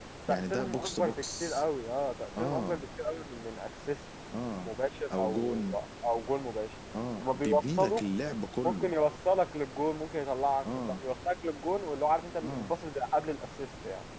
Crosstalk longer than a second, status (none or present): present